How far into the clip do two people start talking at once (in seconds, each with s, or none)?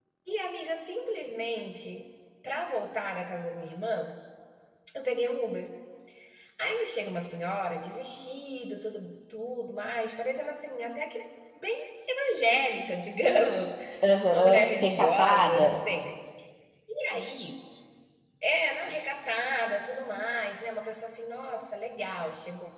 14.3 s